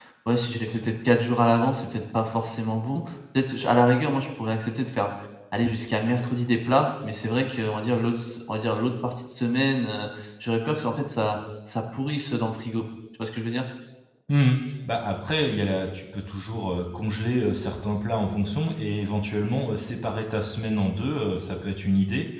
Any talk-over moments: No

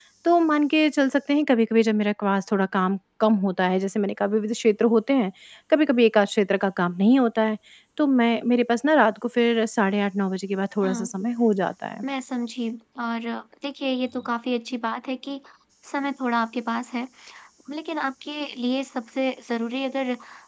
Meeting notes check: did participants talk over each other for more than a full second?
No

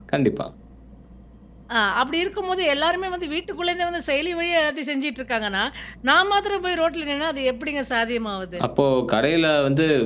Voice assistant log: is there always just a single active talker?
Yes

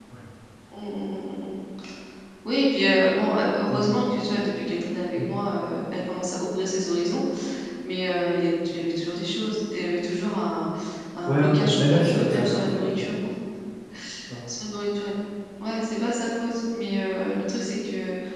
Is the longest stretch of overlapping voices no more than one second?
No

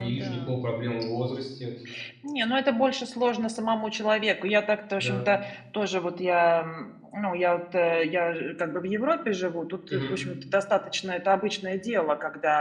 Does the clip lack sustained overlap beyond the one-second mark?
Yes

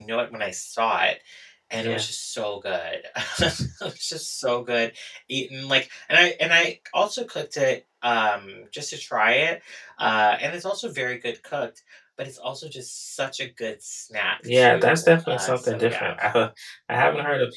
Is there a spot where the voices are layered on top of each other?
Yes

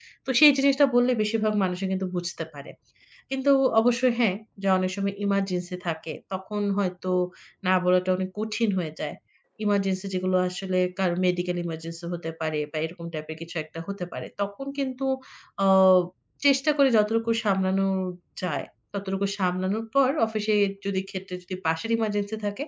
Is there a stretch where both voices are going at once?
No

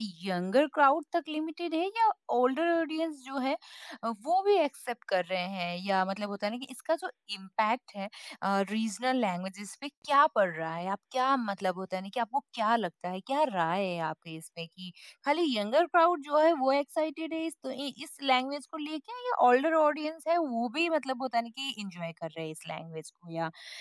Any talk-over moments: No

